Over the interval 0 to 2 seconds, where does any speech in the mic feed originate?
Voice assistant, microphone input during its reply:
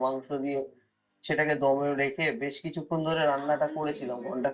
echo only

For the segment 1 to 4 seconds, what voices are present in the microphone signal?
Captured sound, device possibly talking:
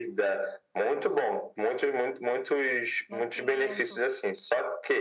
both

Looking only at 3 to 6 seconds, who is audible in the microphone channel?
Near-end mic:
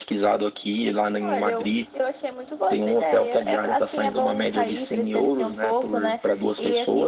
echo only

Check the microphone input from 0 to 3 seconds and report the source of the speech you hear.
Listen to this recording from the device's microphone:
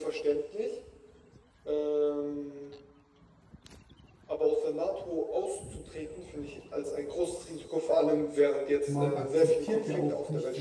echo only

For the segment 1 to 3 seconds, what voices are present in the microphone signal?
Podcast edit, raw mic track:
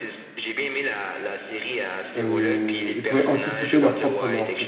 both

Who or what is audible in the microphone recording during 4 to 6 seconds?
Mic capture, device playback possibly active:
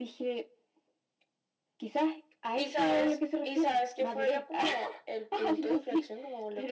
echo only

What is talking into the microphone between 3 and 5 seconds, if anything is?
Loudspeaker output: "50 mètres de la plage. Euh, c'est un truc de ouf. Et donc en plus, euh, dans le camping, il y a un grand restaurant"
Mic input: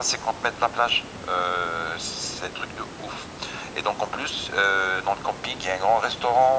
echo only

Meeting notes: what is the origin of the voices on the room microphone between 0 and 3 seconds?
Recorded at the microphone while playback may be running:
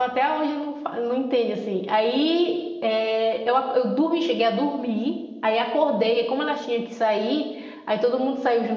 user only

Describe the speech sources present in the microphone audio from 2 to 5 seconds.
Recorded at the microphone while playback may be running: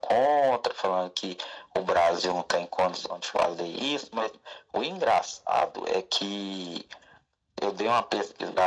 echo only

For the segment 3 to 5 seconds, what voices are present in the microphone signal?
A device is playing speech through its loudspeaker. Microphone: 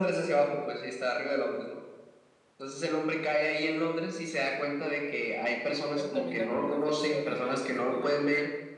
echo only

